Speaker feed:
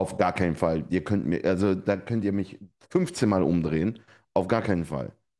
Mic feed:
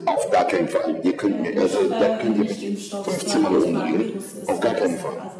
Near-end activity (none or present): present